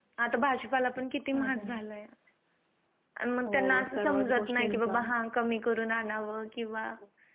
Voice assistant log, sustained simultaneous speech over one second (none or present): present